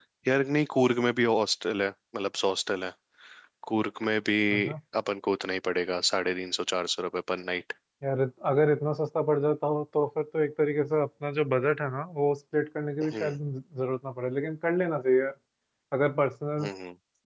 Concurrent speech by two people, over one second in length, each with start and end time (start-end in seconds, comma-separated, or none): none